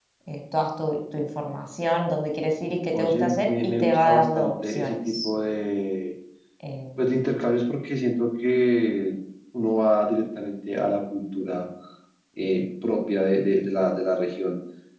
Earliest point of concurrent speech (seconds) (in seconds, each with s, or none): 2.9 s